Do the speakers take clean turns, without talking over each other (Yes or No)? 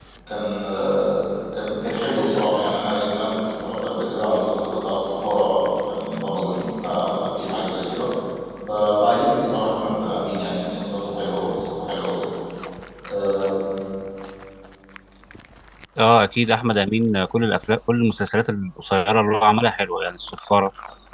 Yes